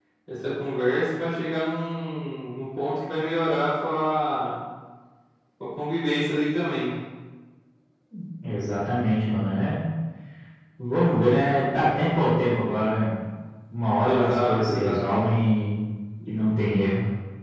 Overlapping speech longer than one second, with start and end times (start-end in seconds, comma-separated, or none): 14.0-15.2